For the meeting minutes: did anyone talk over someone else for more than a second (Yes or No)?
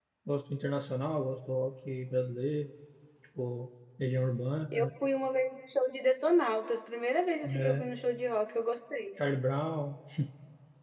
No